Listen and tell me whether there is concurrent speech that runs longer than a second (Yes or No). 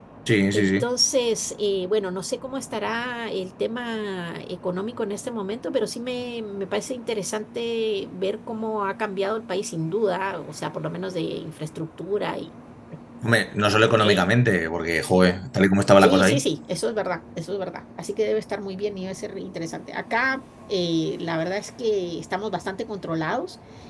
No